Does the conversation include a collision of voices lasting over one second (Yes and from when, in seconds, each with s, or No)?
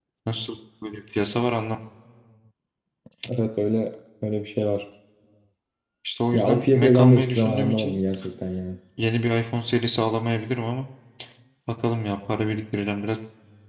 Yes, from 6.3 s